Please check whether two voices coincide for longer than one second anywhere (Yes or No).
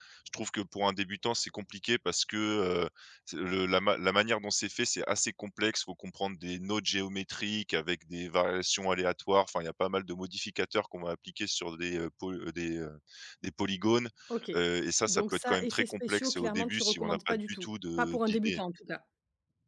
Yes